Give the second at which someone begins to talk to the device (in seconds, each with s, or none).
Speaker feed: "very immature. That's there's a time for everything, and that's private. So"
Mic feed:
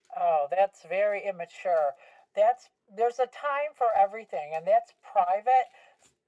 none